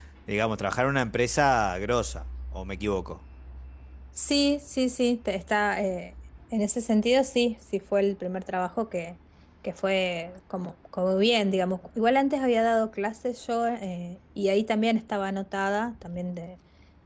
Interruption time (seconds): none

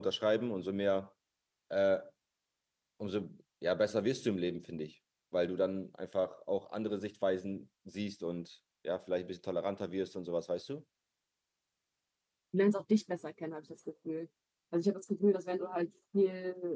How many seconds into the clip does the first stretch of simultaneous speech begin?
none

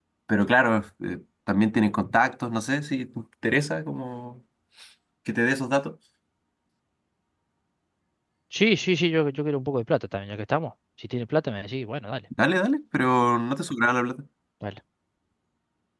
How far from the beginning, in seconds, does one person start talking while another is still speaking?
none

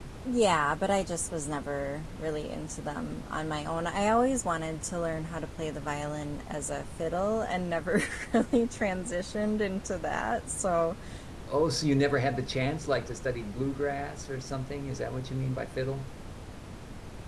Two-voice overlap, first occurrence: none

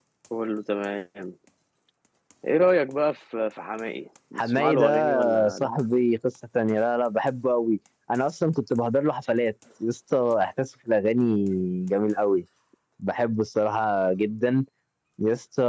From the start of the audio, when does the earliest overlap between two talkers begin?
4.4 s

